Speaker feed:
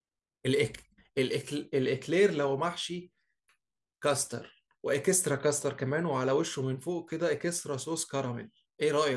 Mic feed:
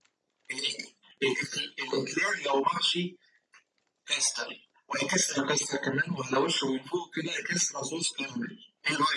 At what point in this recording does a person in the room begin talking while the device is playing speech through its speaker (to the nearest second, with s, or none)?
none